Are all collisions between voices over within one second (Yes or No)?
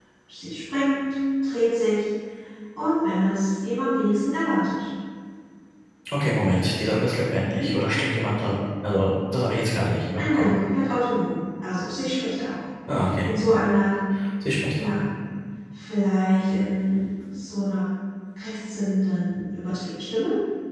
Yes